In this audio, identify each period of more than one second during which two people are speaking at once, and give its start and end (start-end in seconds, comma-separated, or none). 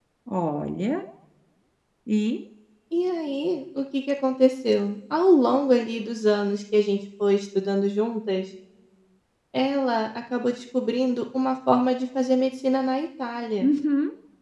none